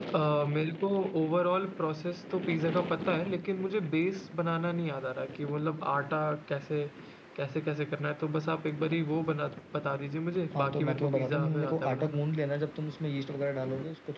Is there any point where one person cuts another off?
Yes, from 10.6 s

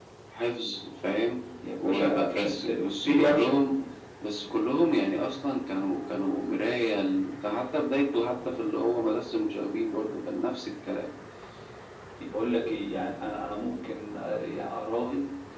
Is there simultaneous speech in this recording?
Yes, from 1.8 s

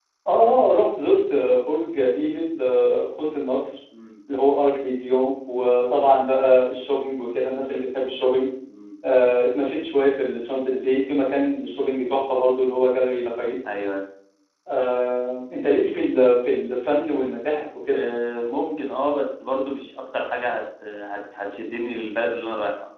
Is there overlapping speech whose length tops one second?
No

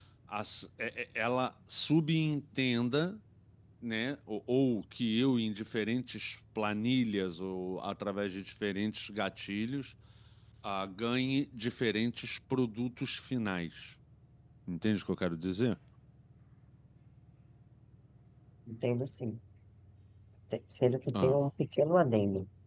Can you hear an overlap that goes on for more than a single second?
No

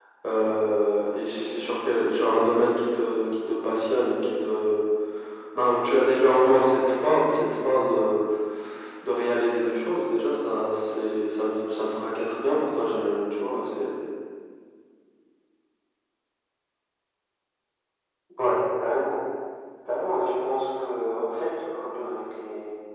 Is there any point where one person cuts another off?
No

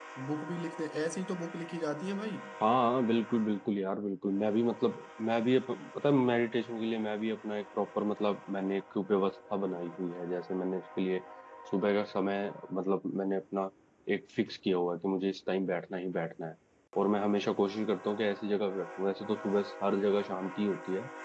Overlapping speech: No

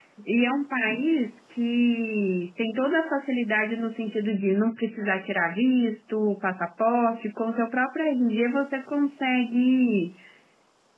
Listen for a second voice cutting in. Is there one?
No

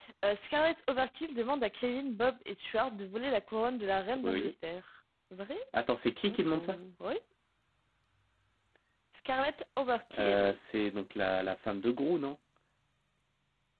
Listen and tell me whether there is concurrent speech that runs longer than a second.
No

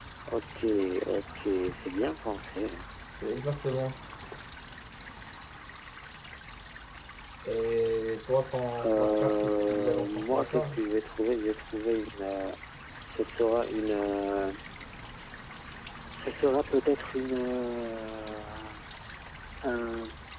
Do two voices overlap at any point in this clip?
Yes, from 8.8 s

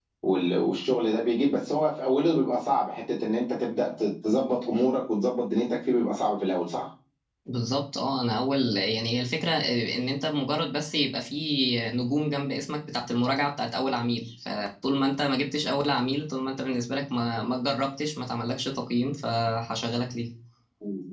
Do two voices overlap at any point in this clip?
No

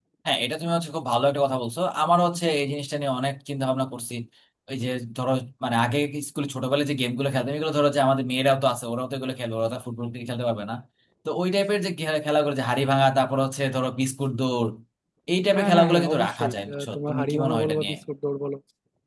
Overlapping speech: Yes, from 15.6 s

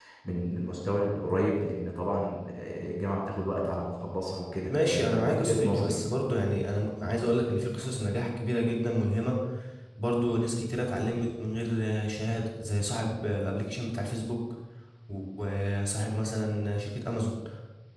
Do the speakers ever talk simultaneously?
Yes, from 4.7 s

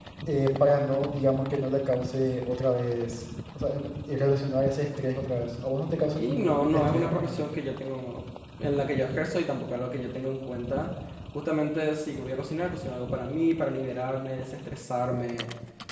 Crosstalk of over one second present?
Yes, from 6.1 s

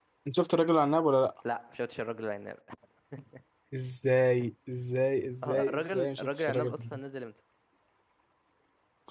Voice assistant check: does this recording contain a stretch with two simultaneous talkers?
Yes, from 5.4 s

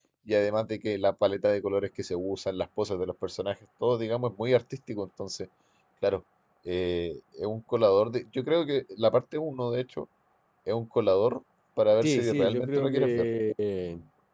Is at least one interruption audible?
Yes, from 12.0 s

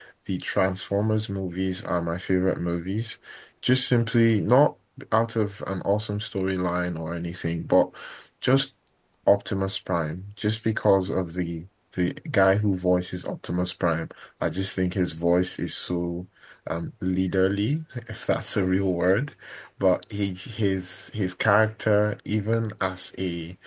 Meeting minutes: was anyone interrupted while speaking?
No

